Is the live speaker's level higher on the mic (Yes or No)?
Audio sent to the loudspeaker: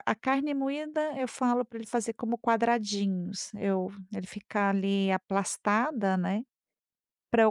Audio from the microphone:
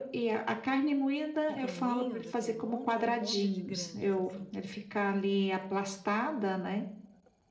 No